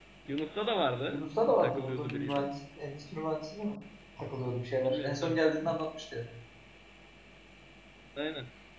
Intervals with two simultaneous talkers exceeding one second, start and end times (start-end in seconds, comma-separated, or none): 1.1-2.5